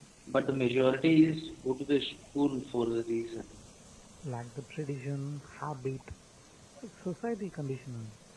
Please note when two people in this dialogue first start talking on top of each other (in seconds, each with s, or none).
none